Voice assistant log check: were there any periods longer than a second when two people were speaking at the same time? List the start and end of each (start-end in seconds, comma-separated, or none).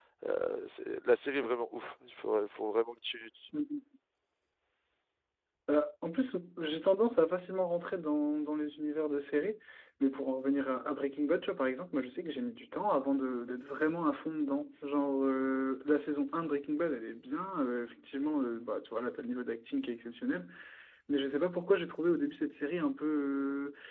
none